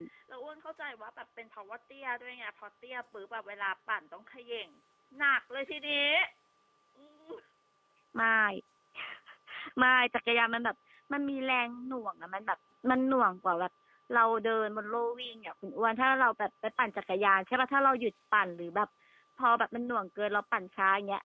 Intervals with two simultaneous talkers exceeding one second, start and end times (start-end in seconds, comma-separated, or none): none